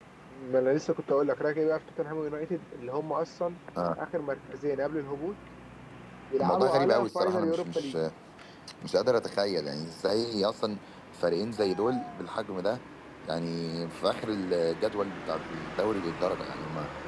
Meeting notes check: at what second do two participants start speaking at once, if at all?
6.4 s

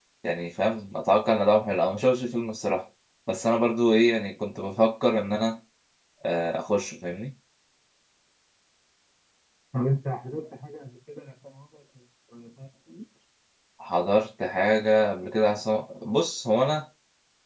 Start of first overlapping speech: none

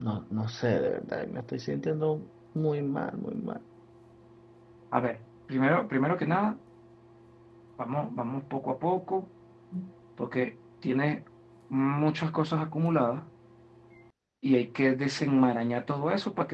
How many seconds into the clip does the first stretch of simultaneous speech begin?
none

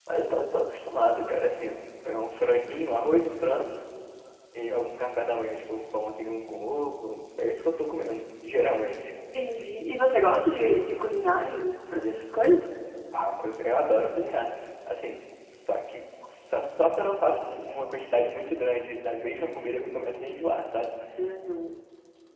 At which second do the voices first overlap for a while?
none

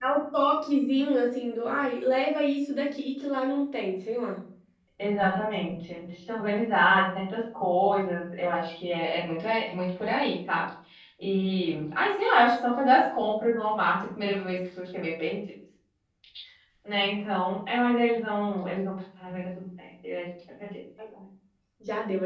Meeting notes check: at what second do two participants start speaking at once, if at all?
none

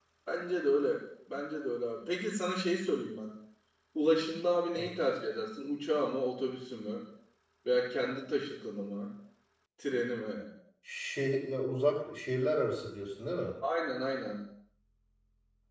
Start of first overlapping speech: none

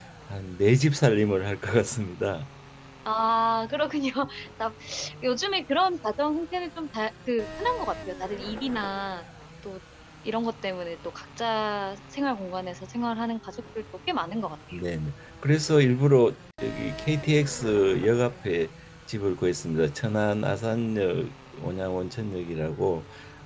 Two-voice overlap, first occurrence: none

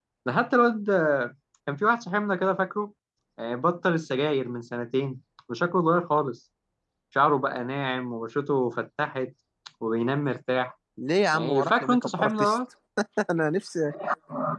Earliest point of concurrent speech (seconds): 11.3 s

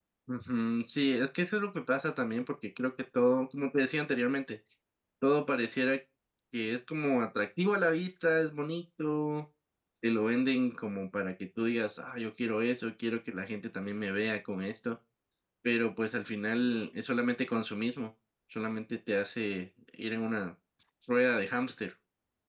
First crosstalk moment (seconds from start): none

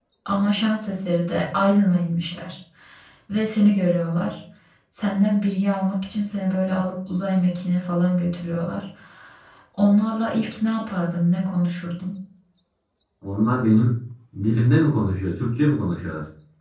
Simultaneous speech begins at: none

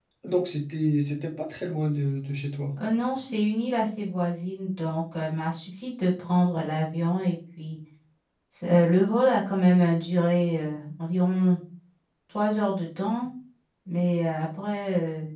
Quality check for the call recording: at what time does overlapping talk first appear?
none

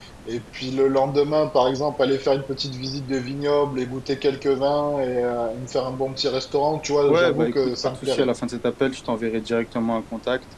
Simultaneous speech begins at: 7.1 s

